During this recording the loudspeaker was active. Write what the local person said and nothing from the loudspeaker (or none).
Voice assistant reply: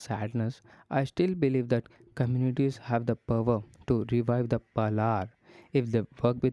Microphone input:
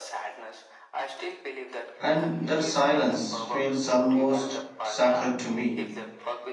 And that silence feels almost sacred to me.